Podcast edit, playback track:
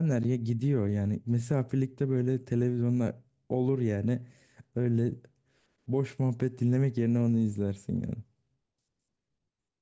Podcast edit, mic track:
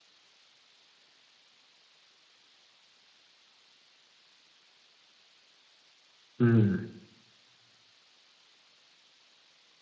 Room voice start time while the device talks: 6.4 s

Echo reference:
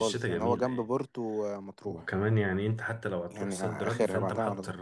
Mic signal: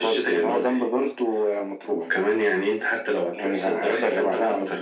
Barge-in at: none

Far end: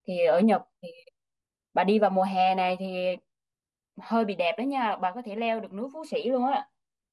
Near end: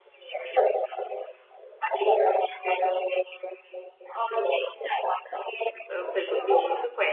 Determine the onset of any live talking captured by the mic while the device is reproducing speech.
5.8 s

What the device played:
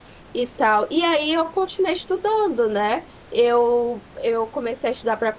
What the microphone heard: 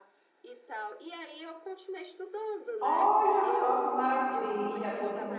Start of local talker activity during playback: 2.8 s

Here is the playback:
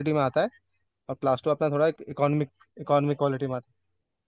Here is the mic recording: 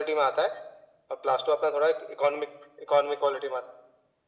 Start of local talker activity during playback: none

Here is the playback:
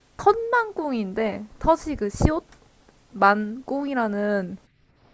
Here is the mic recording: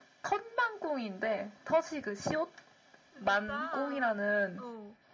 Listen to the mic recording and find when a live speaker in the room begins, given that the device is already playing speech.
3.1 s

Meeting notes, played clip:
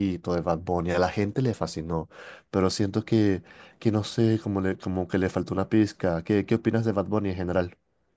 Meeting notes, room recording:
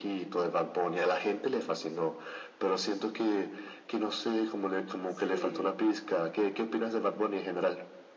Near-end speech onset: 5.0 s

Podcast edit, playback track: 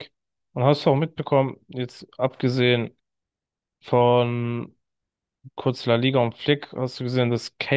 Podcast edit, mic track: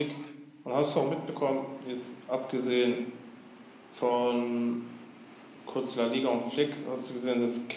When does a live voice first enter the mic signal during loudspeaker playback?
none

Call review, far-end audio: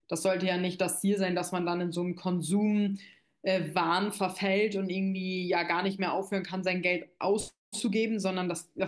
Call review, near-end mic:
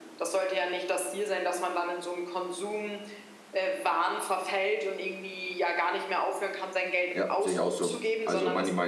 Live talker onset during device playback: 7.1 s

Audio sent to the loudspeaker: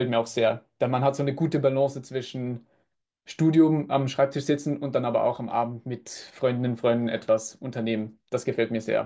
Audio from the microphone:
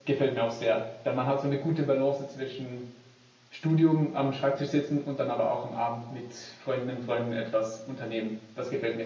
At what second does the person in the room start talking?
none

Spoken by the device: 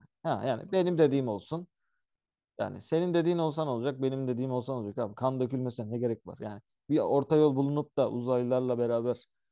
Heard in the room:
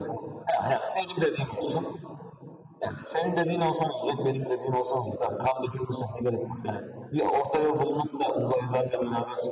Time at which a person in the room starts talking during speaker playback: none

